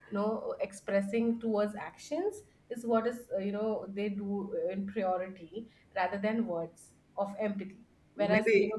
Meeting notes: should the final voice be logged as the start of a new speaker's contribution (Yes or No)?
No